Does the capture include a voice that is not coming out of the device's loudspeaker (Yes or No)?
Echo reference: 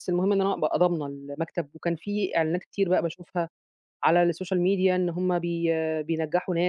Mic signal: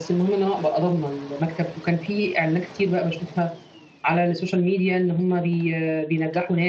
No